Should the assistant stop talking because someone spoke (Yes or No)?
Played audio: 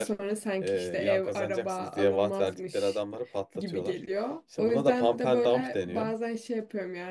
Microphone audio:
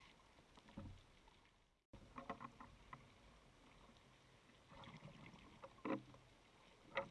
No